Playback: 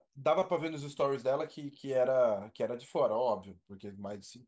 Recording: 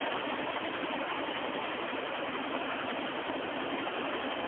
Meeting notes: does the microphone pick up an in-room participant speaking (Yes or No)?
No